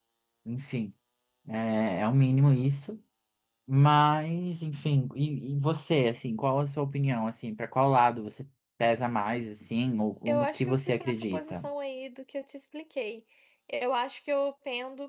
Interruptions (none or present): present